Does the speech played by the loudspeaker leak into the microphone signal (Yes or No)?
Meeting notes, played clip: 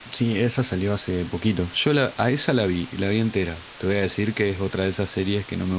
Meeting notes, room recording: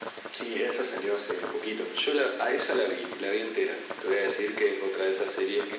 Yes